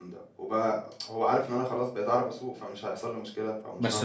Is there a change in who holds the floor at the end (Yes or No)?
Yes